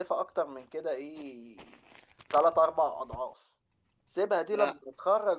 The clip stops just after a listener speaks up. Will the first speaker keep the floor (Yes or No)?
Yes